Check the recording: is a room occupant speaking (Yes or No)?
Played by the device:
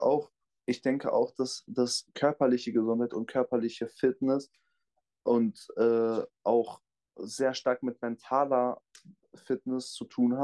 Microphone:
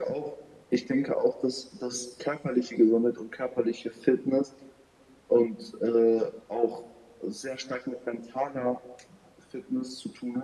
No